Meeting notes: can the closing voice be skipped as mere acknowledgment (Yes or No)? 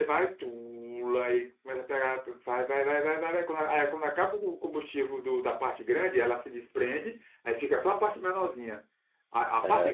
Yes